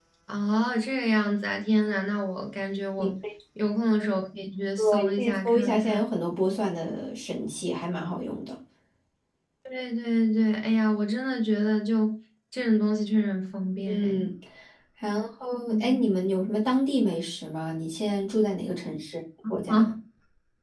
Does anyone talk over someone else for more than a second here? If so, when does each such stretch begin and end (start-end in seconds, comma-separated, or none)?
4.8-6.0